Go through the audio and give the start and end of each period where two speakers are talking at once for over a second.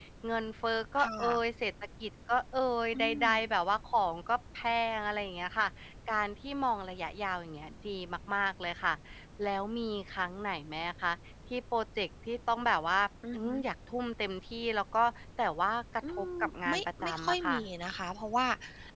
16.1-17.6

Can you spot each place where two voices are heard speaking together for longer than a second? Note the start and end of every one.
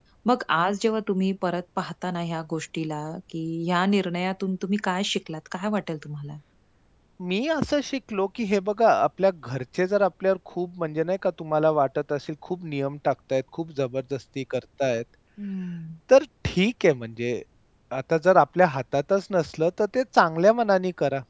none

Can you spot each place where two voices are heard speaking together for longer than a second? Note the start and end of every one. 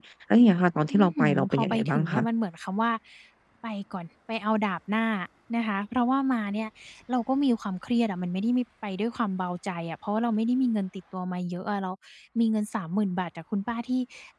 0.9-2.2

